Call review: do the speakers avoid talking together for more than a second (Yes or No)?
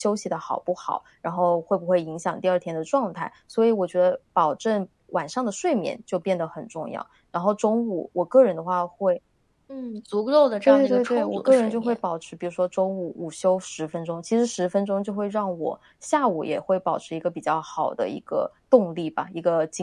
No